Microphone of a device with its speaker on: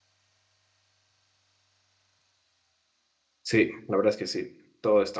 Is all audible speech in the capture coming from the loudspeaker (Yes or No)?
No